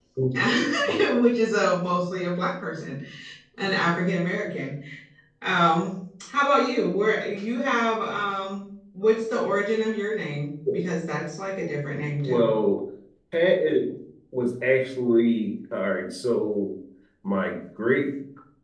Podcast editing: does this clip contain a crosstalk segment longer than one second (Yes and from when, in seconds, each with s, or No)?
No